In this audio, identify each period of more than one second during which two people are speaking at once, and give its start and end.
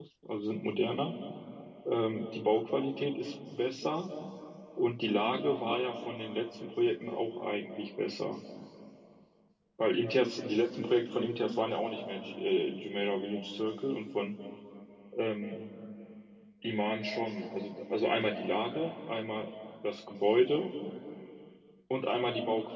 none

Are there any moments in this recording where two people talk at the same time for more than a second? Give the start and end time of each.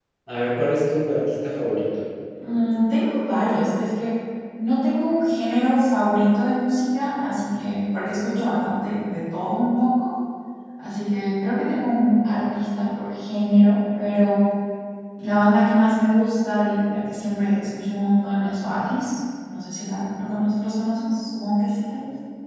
none

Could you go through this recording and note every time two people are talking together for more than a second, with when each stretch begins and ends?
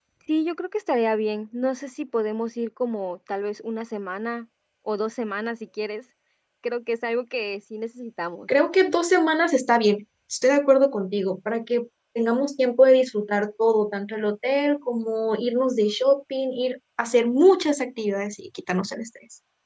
none

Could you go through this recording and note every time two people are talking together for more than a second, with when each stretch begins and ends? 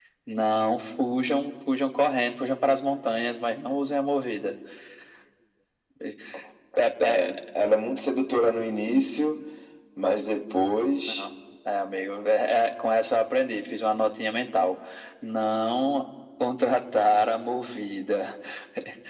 none

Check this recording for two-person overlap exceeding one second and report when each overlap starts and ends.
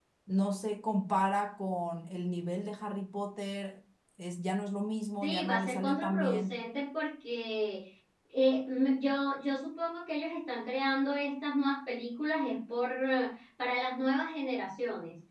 5.2-6.5

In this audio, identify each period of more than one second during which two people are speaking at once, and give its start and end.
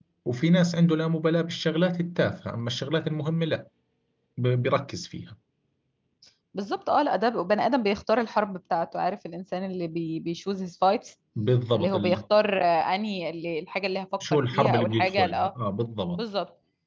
14.2-15.5

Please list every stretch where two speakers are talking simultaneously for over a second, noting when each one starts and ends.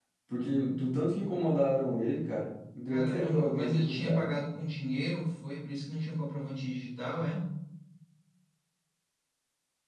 2.9-4.3

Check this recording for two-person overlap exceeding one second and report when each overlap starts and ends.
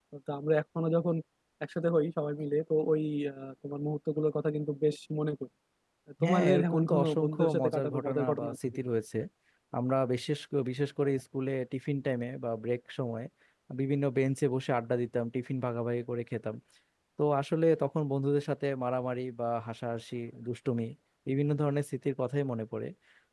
6.2-8.8

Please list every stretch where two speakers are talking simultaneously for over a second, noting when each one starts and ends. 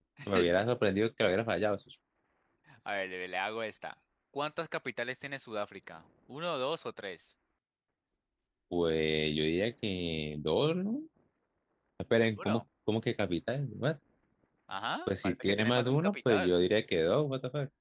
15.1-16.5

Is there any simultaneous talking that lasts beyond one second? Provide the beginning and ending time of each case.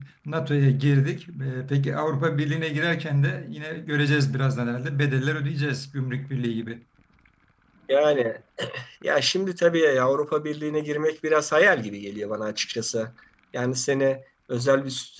none

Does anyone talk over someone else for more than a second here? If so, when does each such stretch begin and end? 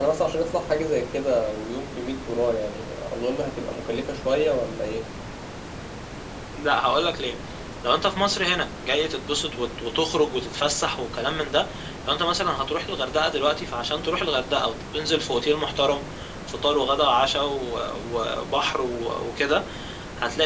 none

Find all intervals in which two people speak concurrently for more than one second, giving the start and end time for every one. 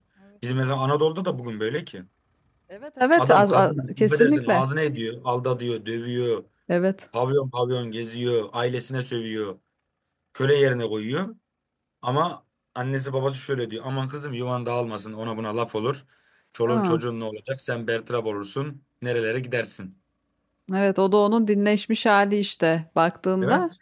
3.2-4.6

